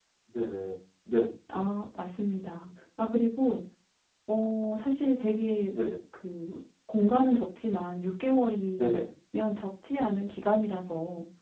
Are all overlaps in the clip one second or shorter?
Yes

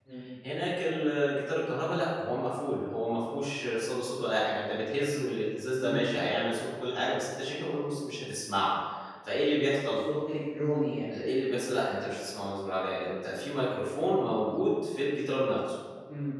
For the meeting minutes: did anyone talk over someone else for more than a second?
No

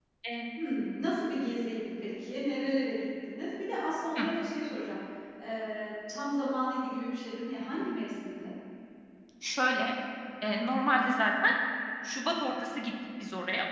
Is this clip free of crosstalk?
Yes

